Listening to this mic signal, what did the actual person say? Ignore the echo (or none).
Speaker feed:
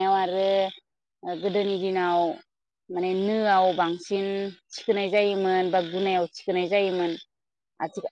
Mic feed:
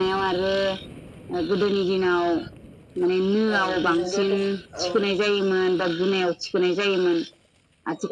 औ बेजोंबो दख औ